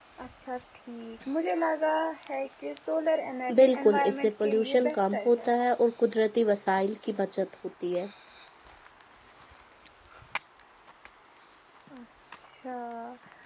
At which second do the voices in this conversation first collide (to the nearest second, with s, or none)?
3 s